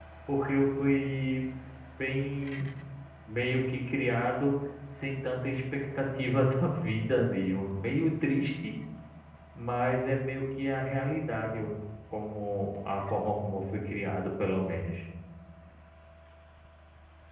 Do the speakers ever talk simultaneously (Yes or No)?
No